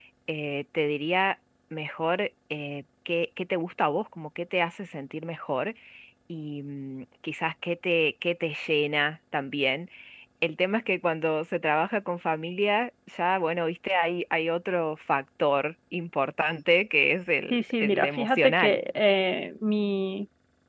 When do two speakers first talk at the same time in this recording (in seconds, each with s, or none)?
17.5 s